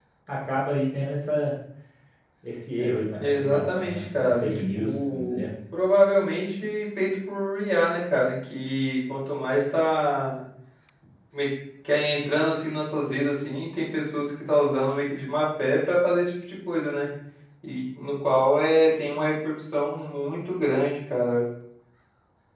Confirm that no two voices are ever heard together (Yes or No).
No